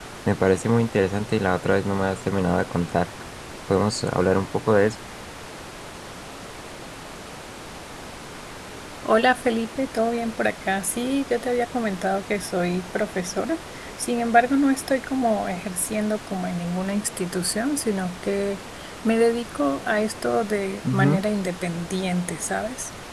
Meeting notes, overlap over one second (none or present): none